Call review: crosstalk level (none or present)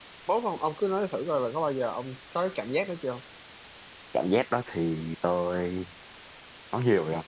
none